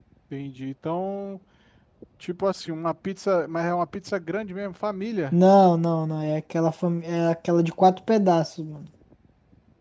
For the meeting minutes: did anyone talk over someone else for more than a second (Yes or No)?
No